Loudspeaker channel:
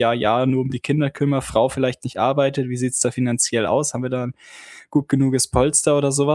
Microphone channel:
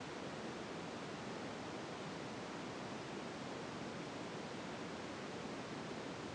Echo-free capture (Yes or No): Yes